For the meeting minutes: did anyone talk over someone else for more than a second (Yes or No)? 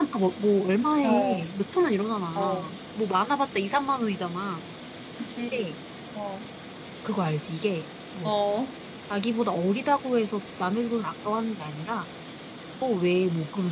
No